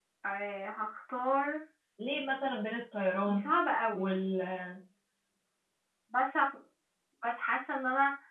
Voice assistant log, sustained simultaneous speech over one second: none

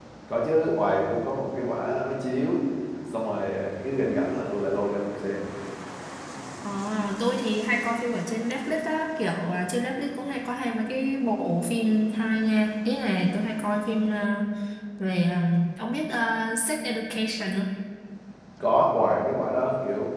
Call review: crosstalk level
none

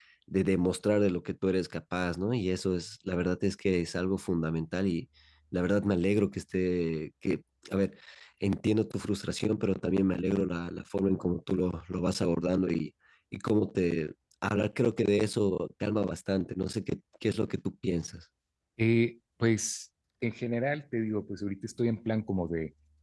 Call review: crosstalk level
none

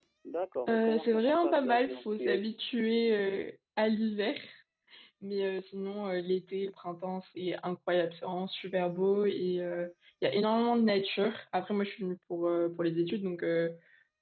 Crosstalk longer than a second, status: present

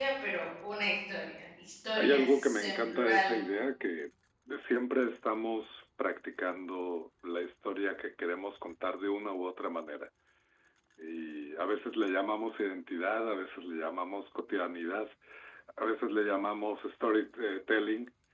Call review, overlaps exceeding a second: present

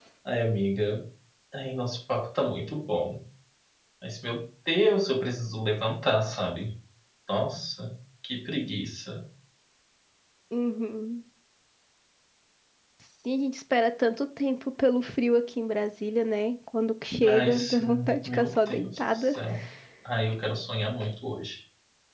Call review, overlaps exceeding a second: present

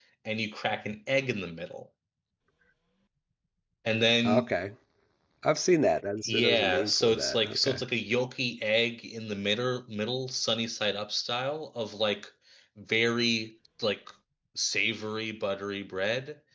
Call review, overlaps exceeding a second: present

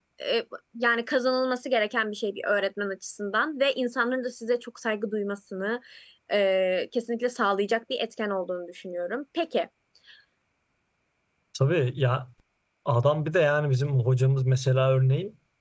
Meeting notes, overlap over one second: none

